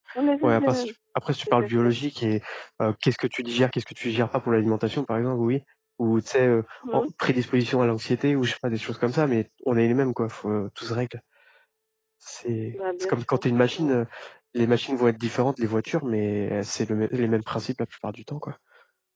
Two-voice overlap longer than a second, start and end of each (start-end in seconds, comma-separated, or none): 12.7-13.9